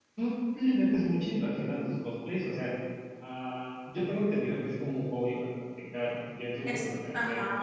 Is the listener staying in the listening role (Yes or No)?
Yes